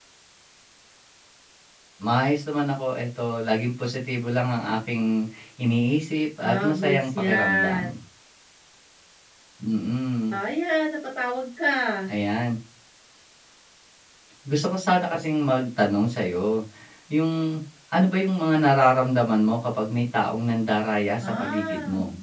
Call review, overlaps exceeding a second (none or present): present